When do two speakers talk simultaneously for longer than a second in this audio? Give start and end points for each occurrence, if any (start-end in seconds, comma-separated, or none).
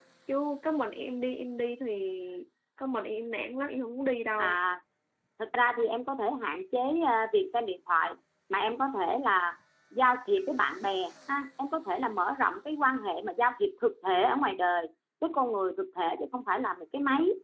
none